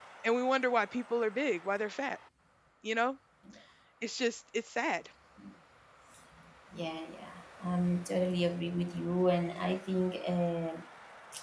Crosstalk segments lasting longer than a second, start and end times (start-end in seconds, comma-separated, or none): none